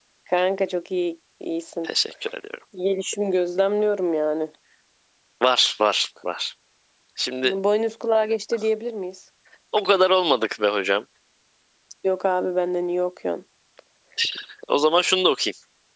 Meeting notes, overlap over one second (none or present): none